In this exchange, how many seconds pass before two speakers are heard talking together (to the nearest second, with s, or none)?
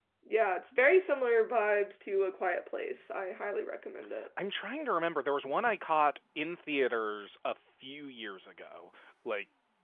none